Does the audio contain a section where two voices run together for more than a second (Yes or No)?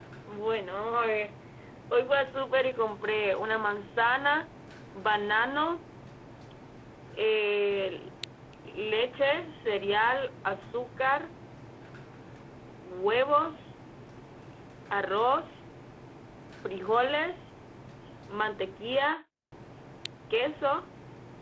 No